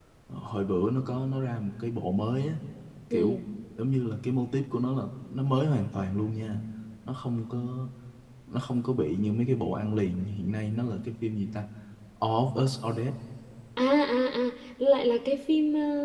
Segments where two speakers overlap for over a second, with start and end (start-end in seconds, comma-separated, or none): none